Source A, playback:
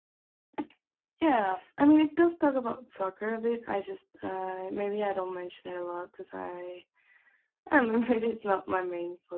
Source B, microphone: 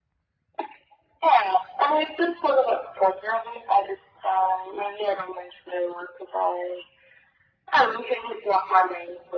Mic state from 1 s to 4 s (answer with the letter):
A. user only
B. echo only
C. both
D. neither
B